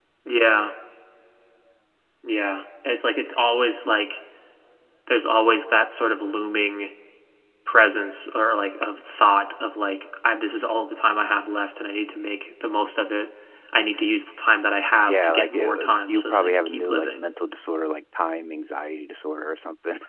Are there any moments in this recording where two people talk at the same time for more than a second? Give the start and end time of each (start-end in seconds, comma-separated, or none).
15.1-17.2